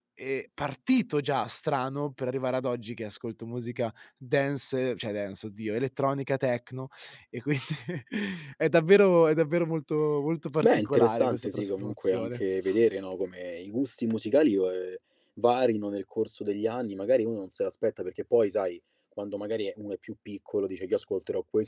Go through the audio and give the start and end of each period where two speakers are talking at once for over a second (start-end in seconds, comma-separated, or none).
10.6-12.4